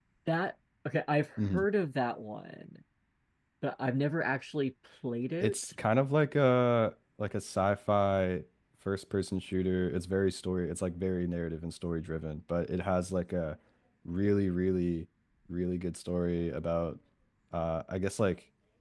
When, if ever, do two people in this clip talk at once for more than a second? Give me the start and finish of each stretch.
none

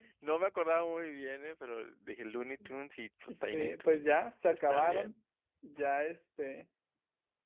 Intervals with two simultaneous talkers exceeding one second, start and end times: 3.3-5.2

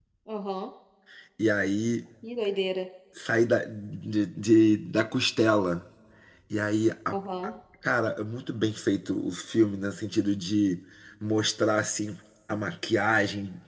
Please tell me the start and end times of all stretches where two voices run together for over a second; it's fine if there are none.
none

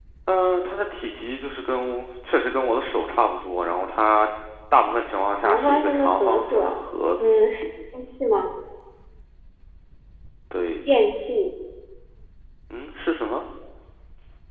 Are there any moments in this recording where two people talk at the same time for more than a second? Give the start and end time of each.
5.4-6.8

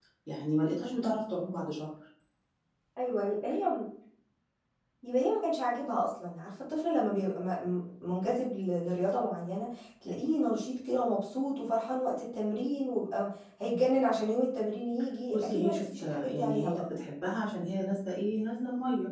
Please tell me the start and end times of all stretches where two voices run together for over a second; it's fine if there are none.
15.3-16.8

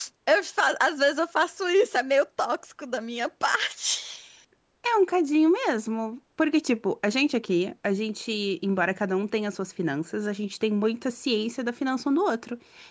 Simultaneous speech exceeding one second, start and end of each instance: none

